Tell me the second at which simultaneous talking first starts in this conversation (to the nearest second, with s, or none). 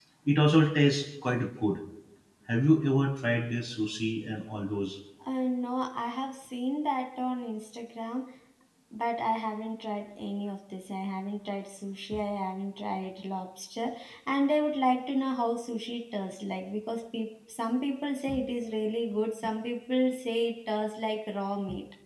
none